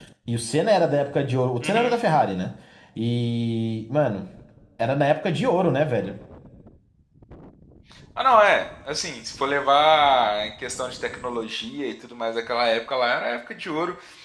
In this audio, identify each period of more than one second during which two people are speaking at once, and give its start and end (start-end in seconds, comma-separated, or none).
none